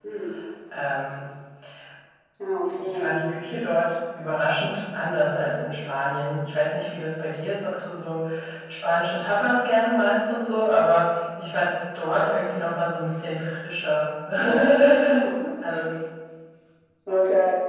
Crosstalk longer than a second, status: none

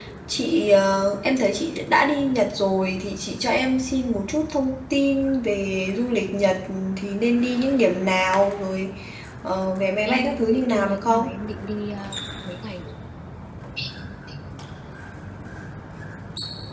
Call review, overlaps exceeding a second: present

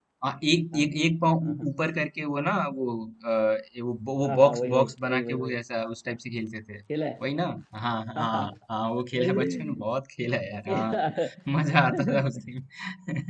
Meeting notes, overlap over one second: present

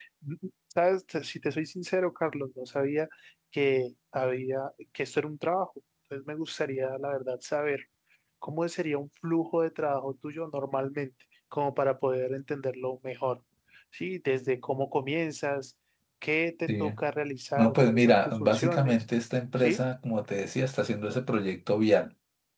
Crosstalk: present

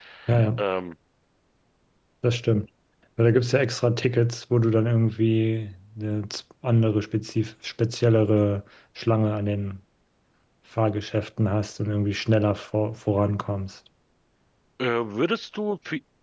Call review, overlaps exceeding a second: none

